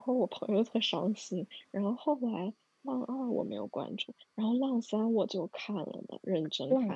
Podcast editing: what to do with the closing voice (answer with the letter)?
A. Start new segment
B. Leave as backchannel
A